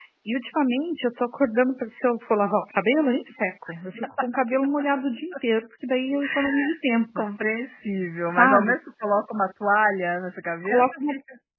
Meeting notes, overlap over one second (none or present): none